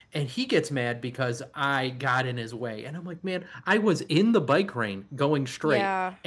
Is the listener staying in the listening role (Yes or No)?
Yes